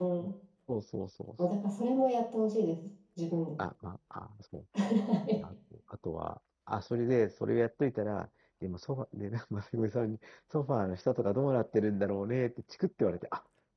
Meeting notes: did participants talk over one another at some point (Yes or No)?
No